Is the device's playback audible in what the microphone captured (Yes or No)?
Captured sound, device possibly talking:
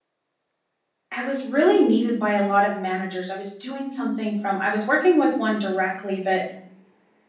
No